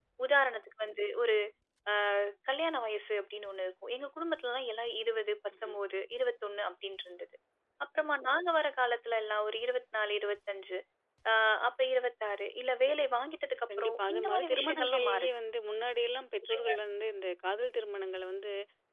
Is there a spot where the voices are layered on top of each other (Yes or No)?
Yes